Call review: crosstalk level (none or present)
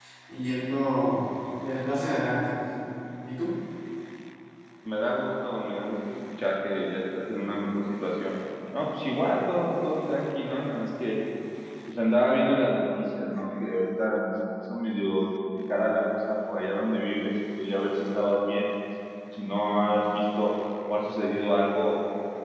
none